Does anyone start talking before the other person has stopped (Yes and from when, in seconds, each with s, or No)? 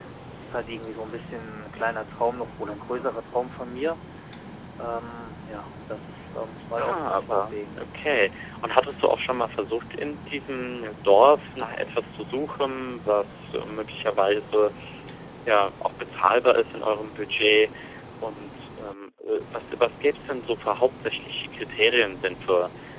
Yes, from 6.8 s